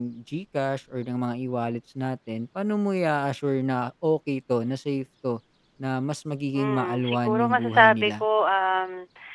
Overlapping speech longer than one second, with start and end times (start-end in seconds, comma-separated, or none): 6.5-8.2